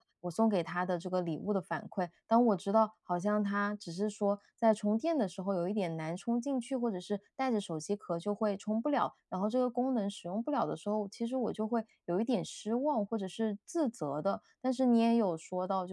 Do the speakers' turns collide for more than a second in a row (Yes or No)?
No